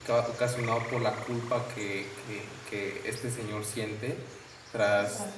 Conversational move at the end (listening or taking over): listening